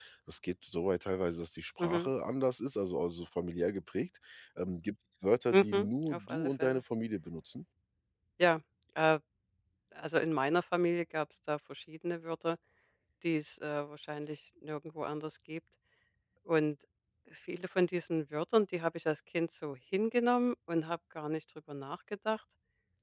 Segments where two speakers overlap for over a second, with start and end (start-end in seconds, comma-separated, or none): 5.5-6.8